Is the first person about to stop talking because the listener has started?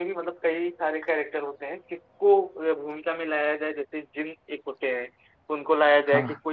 No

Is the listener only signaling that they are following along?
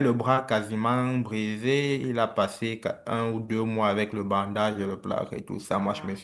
Yes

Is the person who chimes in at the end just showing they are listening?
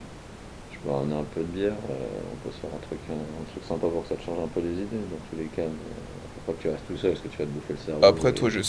No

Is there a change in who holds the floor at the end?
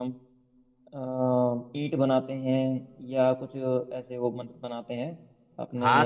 Yes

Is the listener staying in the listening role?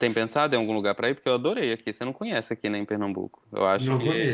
No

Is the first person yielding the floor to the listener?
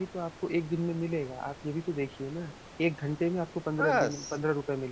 No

